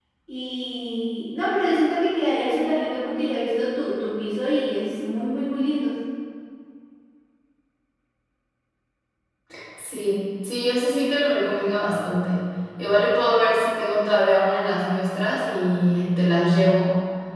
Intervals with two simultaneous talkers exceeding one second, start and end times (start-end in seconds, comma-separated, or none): none